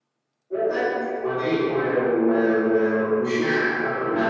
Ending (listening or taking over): taking over